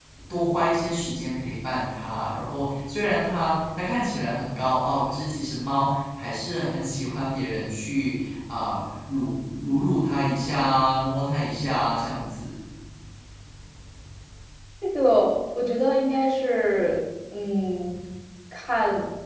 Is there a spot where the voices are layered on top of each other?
No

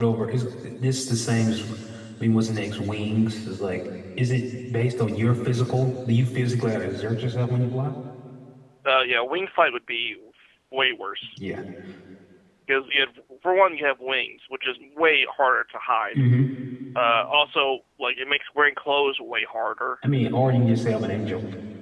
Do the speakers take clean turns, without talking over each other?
Yes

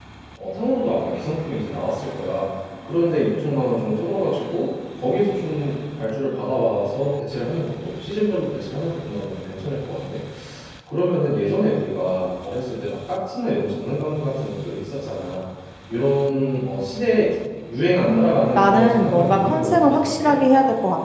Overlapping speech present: Yes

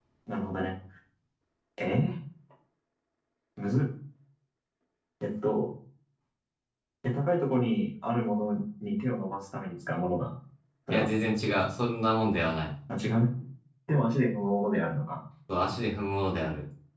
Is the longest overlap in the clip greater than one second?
No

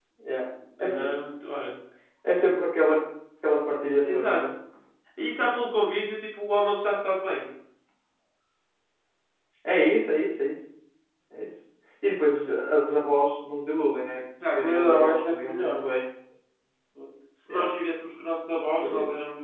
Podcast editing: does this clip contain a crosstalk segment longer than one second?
Yes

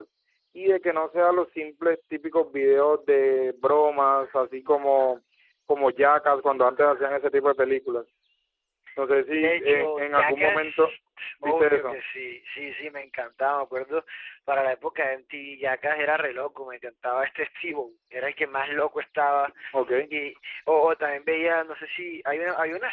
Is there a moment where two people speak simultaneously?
Yes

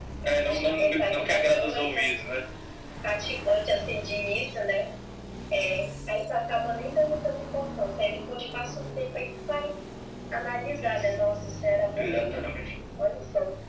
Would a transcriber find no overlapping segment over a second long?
No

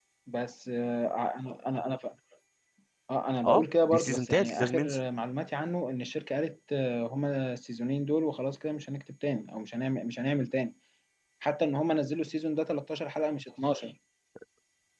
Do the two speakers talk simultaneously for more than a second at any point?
Yes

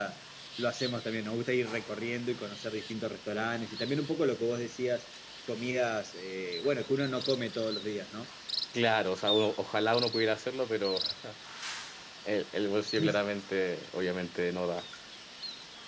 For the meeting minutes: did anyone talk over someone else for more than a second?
No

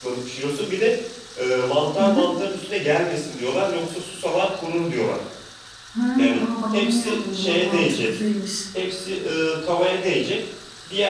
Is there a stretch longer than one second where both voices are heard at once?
Yes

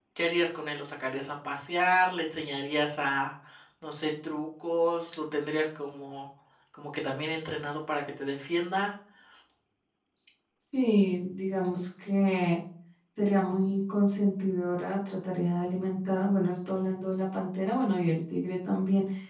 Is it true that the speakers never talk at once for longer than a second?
Yes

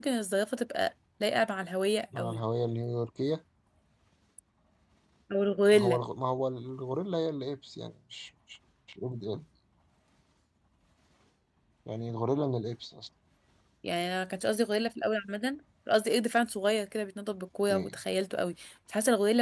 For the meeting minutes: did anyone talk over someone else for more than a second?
No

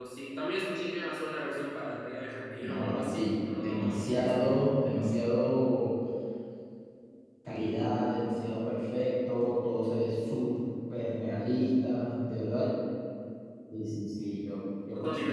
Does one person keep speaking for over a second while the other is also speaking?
Yes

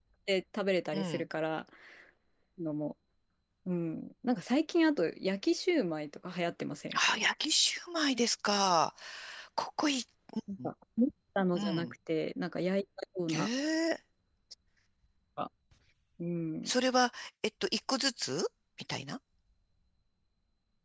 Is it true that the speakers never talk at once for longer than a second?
Yes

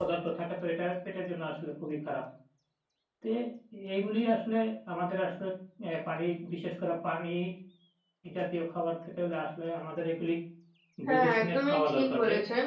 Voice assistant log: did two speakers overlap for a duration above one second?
Yes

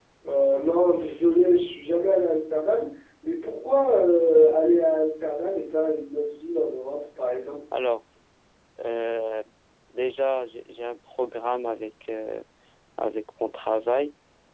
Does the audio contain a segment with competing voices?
No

